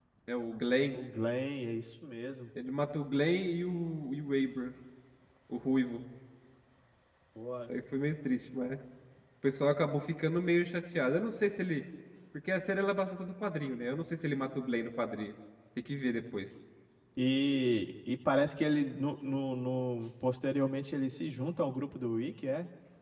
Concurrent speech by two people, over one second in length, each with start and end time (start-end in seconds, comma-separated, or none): none